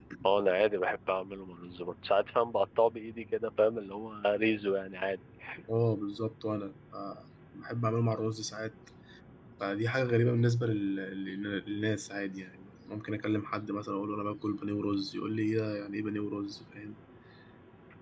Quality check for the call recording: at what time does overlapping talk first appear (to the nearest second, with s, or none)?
none